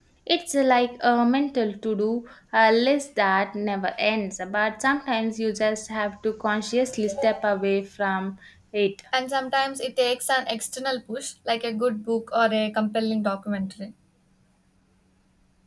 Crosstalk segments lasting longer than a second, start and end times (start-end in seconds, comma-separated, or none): none